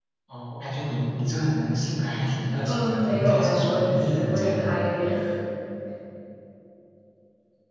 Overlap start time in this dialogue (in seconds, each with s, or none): 2.6 s